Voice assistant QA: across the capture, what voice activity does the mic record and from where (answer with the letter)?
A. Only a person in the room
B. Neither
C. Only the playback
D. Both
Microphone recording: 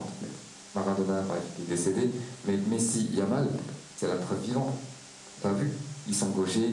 C